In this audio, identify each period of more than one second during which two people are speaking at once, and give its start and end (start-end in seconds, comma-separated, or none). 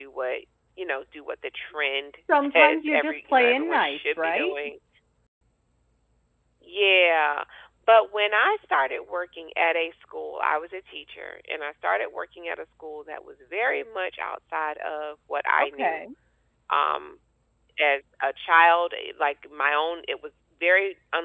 2.3-4.5